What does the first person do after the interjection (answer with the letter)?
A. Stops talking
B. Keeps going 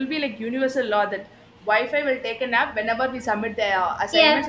A